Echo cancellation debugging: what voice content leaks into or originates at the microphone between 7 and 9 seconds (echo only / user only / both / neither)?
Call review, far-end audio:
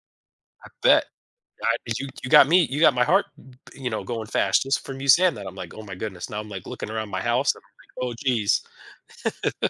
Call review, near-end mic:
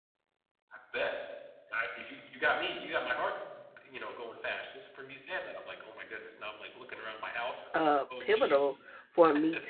both